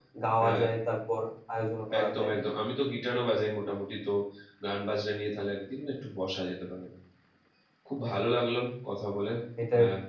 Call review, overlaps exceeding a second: none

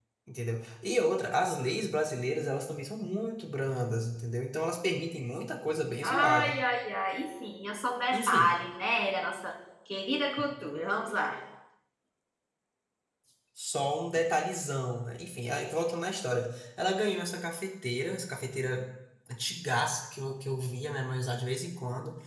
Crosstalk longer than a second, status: none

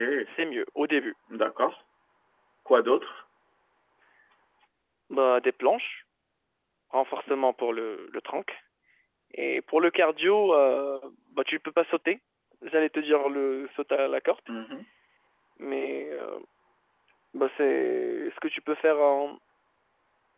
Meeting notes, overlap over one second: none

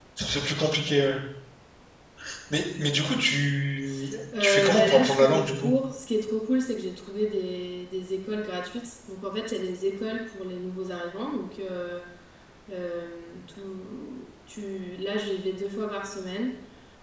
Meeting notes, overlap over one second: present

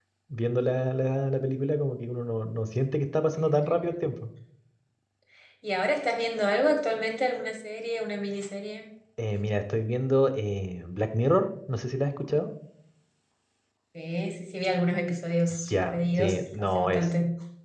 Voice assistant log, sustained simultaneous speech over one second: present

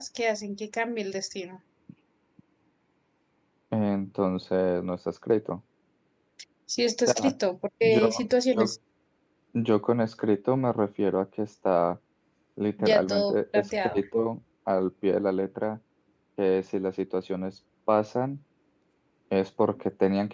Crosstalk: present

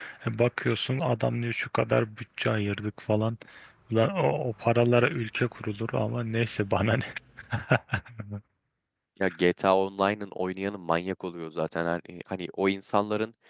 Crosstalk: none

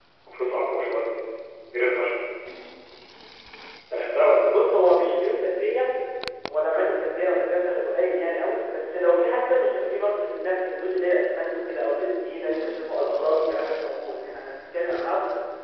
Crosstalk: none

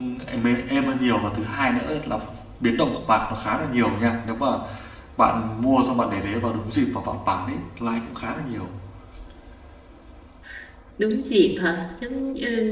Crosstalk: none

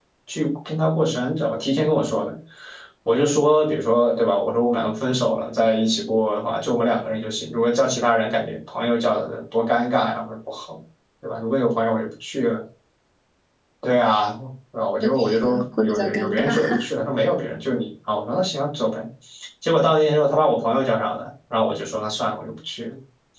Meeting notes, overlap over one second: present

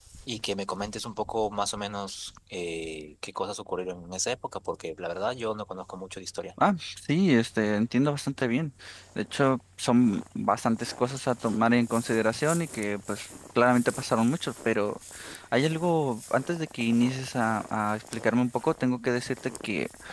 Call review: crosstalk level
none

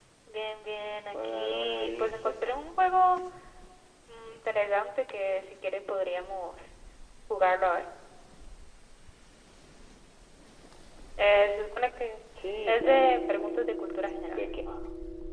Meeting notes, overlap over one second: present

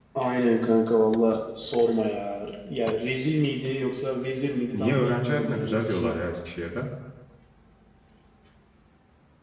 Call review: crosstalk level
present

